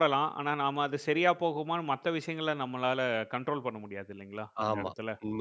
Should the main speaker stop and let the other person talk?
Yes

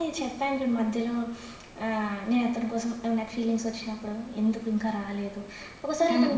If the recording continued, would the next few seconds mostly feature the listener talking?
No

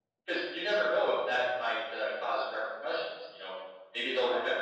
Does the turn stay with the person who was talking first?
Yes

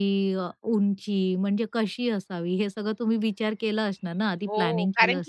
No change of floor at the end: No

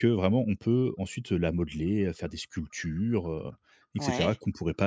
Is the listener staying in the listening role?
Yes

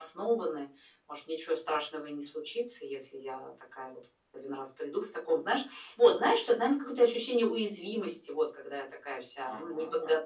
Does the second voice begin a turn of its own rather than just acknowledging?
No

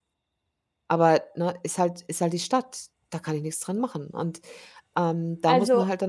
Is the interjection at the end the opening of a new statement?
No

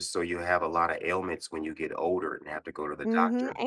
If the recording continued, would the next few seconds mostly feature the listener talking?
Yes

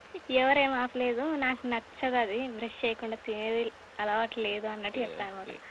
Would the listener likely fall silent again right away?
No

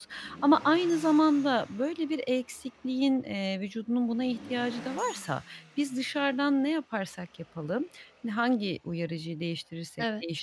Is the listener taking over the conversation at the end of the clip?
No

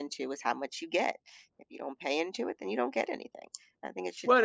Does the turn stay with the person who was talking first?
No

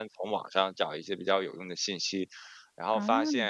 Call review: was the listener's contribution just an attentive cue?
Yes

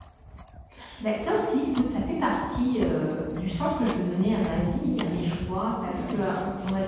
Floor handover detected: No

